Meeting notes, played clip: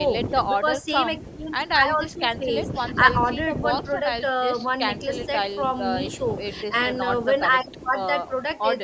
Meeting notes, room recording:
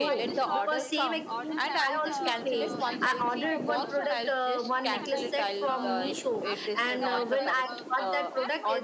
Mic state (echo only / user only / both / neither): both